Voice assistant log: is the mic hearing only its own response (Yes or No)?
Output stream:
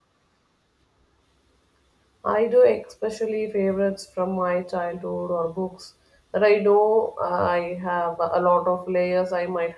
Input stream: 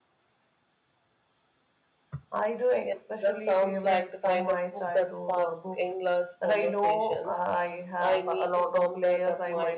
No